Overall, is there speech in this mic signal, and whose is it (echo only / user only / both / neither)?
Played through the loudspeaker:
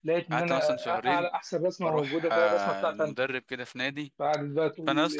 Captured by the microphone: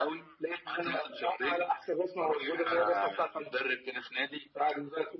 echo only